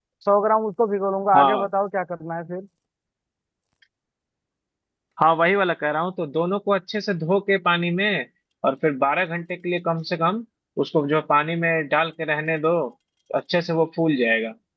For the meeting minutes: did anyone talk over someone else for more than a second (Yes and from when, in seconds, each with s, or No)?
No